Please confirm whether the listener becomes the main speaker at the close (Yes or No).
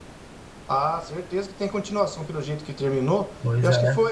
No